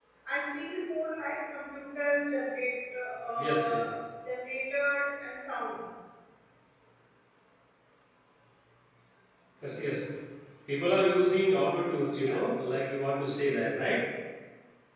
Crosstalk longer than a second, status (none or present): none